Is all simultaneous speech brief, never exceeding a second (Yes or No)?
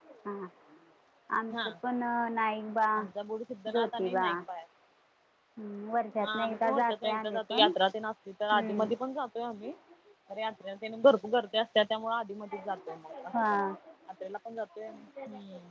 No